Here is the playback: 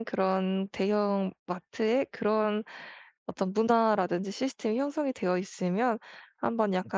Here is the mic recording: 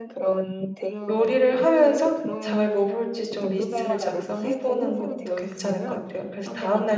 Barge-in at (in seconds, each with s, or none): 1.1 s